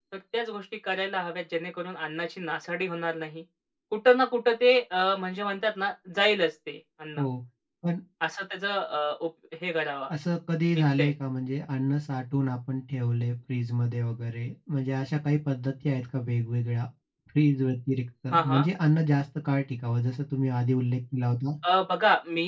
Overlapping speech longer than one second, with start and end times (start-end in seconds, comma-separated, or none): none